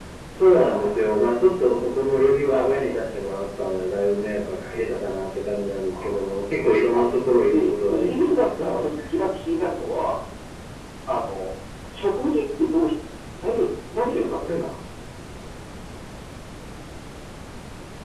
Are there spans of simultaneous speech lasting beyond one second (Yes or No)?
Yes